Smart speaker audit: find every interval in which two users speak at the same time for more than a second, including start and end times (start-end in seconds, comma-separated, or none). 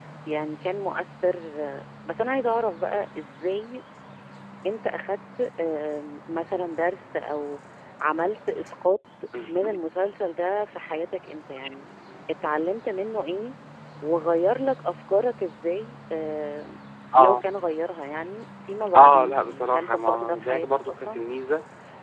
18.9-21.2